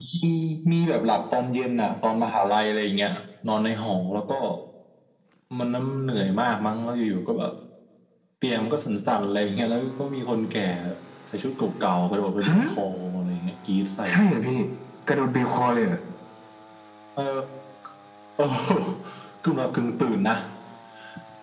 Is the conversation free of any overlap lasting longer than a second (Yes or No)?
Yes